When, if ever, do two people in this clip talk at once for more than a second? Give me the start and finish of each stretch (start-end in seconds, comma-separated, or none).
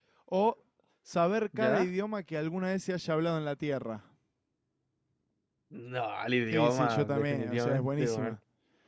6.5-8.3